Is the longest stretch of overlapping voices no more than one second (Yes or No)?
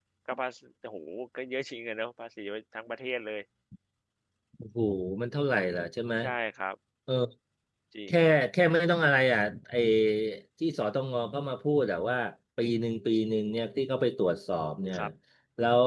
Yes